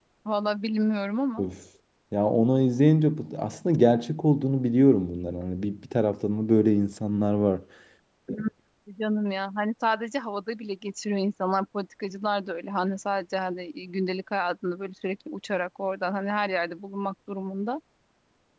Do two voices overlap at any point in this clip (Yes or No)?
No